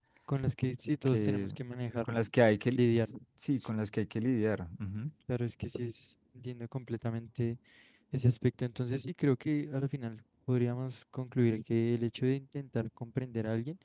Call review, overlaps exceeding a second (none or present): none